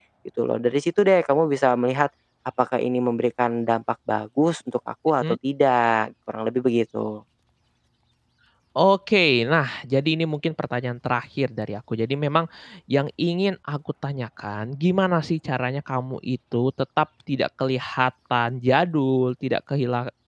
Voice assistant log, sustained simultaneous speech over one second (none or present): none